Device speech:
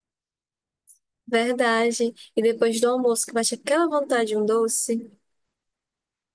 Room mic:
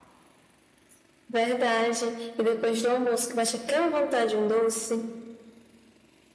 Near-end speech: none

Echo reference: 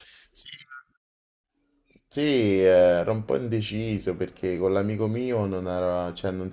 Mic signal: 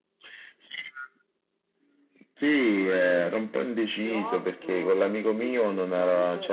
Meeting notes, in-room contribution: present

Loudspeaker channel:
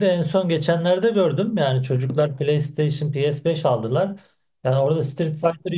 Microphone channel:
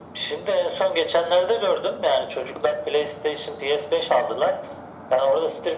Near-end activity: none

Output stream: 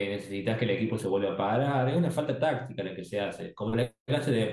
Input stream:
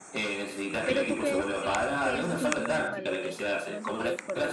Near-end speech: present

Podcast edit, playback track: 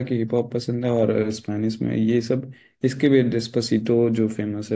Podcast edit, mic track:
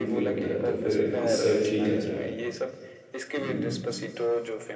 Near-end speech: present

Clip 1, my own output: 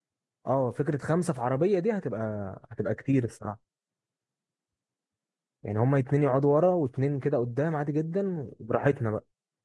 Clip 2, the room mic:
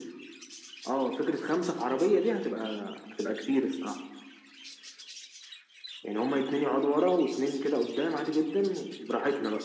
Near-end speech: none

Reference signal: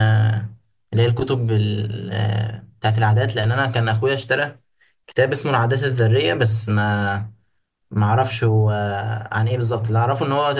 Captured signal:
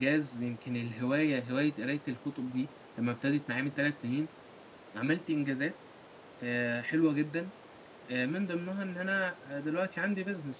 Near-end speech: present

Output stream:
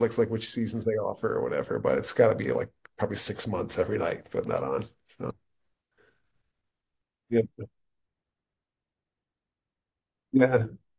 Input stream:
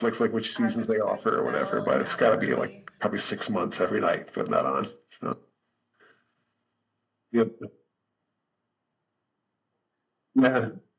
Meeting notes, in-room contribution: present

